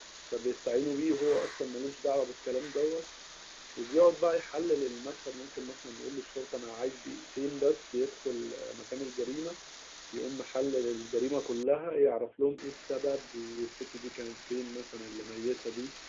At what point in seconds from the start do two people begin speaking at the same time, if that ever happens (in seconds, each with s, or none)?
none